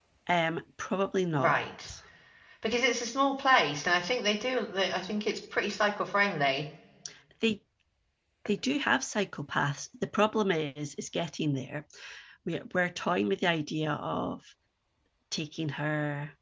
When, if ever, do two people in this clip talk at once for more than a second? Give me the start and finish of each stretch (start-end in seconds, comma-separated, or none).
none